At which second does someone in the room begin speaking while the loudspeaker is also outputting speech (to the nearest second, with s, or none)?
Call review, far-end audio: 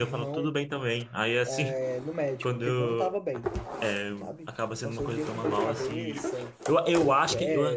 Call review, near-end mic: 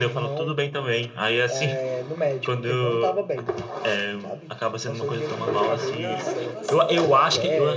6 s